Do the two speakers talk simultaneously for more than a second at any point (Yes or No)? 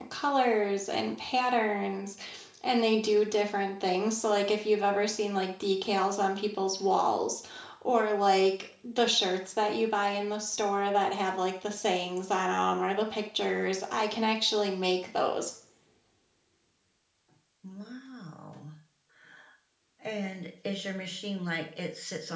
No